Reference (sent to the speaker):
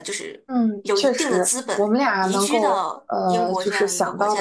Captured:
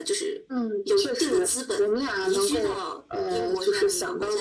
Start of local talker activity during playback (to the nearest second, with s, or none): none